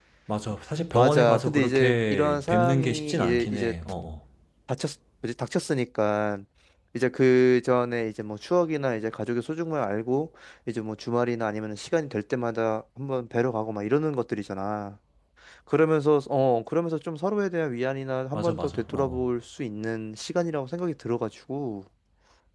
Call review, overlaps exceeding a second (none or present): present